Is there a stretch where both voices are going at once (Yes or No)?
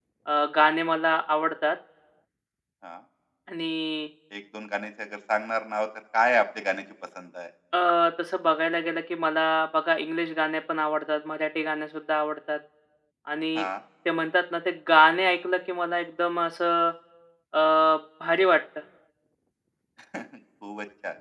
No